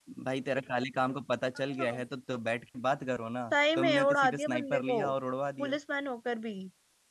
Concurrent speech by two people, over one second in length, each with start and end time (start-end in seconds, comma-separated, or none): 3.5-5.0